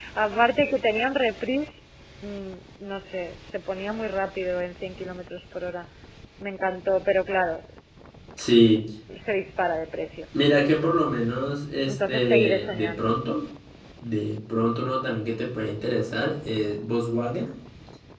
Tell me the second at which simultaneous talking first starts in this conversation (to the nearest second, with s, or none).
12 s